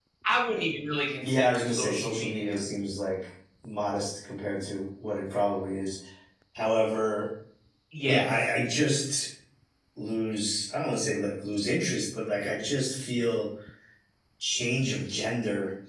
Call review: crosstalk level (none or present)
present